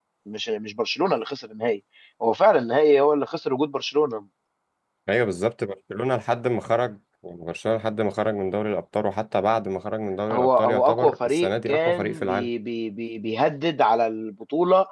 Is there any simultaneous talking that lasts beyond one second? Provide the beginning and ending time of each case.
10.3-12.5

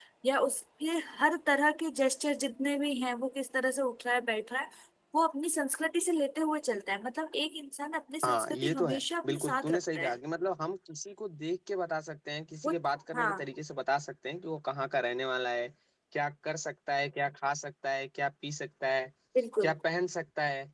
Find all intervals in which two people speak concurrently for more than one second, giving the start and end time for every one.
8.2-10.1

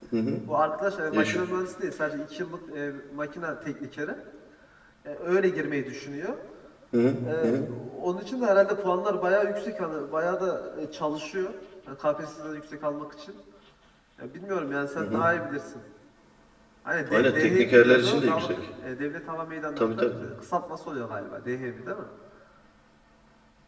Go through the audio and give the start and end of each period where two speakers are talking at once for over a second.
17.1-18.7

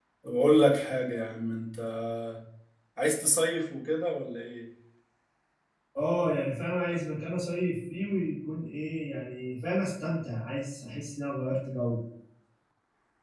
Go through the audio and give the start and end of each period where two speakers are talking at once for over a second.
none

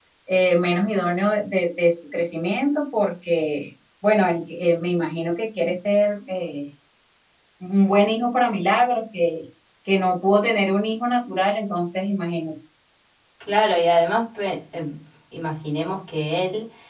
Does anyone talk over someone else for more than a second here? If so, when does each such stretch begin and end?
none

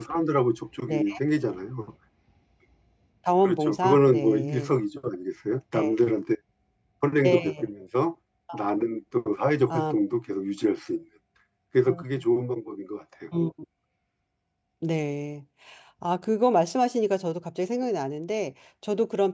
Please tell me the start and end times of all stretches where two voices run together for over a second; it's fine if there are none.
3.5-4.7

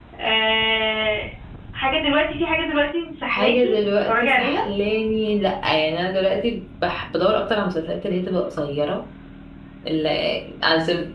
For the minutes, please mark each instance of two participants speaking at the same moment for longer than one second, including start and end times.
3.3-4.6

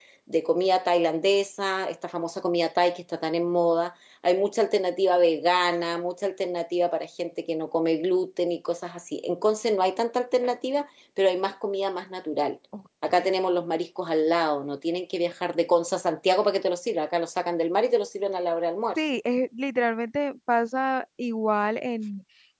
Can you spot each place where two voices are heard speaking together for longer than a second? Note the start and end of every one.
none

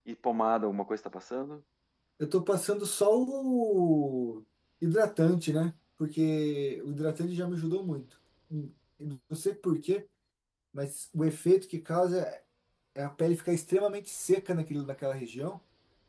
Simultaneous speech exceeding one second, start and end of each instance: none

